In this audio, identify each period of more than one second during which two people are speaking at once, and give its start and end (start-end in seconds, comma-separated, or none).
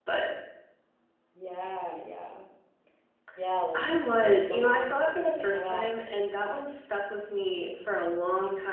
3.7-5.9